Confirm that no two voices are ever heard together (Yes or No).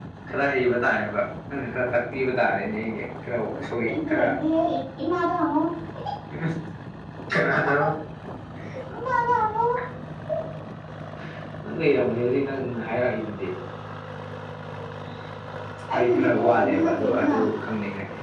No